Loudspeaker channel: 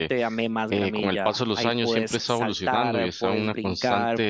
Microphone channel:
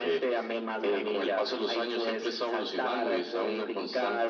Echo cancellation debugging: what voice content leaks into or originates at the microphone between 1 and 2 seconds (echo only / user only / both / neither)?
echo only